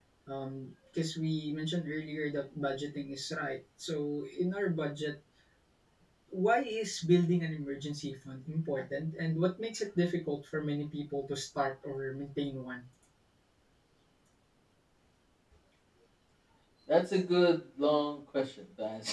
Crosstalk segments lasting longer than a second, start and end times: none

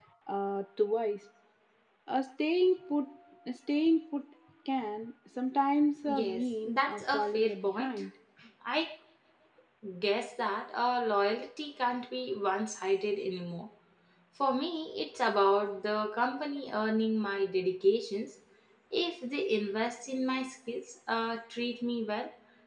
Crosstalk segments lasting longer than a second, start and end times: 6.1-7.9

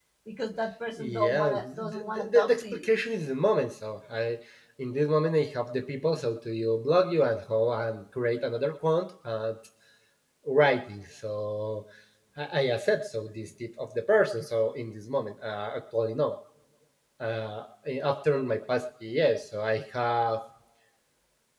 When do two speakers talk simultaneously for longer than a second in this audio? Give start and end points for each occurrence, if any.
1.0-2.9

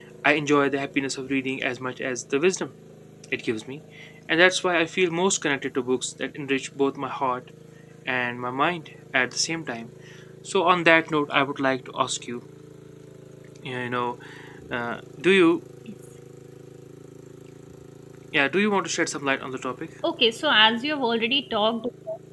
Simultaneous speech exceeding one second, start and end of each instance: none

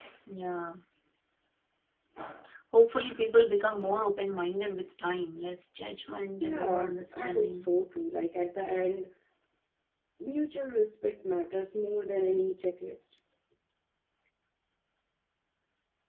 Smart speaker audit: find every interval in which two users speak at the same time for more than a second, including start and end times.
6.4-7.6

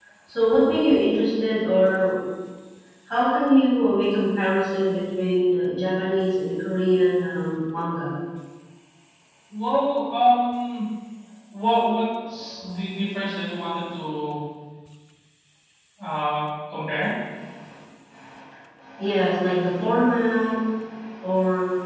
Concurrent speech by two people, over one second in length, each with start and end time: none

